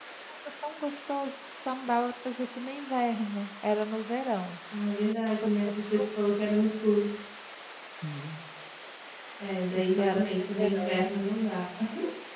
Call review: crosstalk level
present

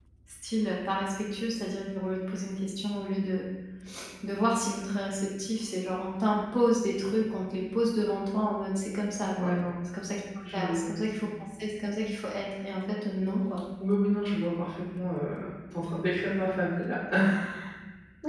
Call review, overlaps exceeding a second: none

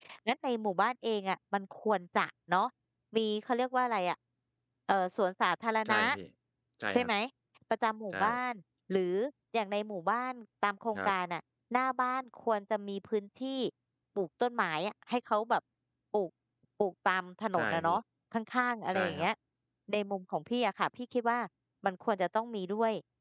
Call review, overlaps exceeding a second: none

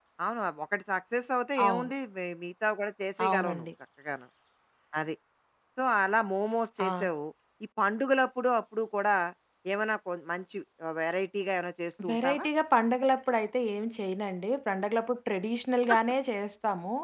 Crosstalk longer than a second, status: none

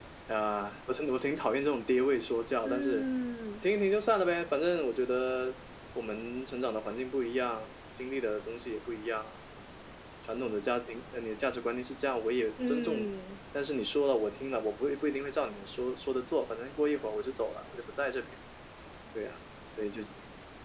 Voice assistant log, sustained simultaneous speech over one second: none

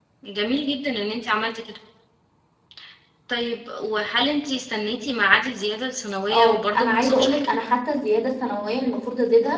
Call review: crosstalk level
present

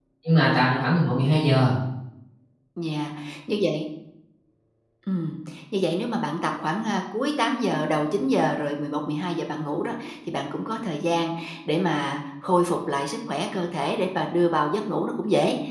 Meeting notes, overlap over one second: none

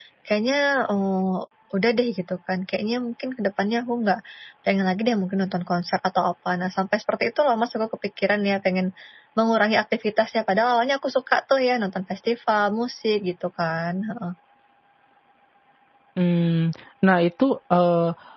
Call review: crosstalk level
none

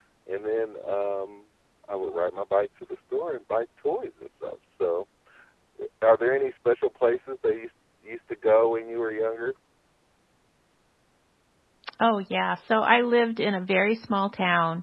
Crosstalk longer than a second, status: none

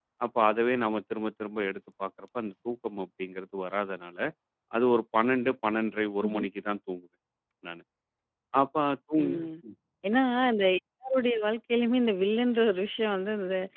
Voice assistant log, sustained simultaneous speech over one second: none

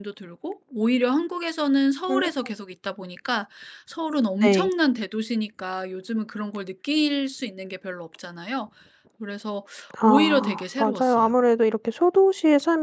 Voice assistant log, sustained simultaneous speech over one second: present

